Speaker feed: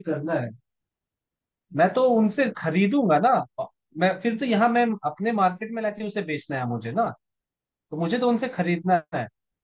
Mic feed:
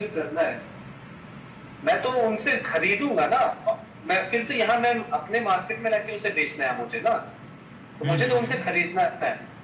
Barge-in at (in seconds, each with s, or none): 8.0 s